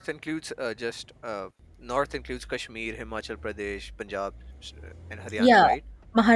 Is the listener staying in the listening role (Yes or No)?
No